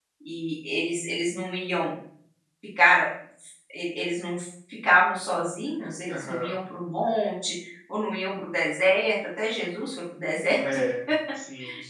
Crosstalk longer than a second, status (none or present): none